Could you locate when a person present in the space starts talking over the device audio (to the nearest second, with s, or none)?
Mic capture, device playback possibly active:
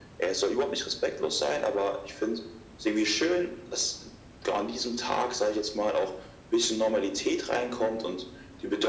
none